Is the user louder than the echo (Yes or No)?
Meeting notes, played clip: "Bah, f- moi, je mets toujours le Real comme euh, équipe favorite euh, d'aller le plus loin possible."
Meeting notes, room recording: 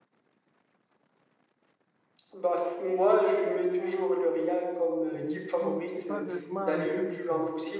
No